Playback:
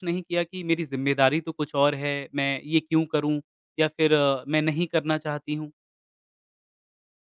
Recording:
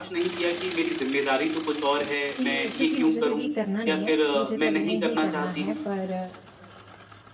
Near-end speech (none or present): present